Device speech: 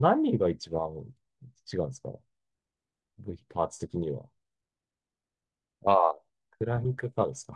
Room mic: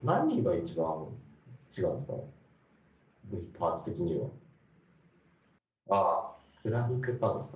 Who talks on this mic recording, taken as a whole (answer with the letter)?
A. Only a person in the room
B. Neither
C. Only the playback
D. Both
C